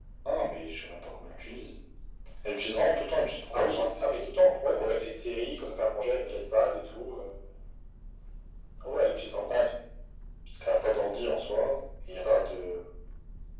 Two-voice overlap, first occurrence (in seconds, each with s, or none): 3.5 s